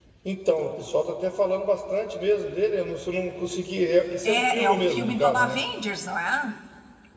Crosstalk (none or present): present